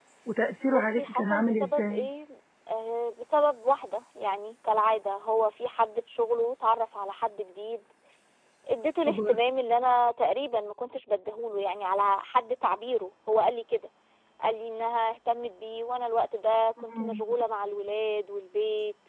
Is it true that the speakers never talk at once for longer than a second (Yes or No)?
No